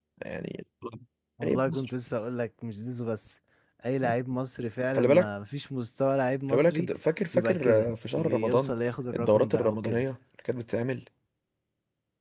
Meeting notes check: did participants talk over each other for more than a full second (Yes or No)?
Yes